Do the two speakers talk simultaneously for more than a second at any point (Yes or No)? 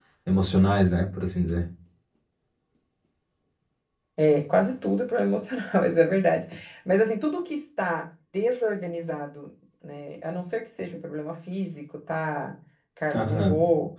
No